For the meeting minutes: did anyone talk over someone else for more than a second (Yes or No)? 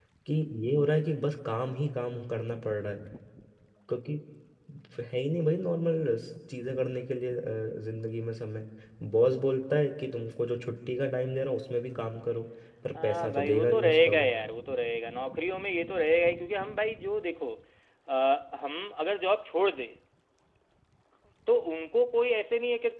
Yes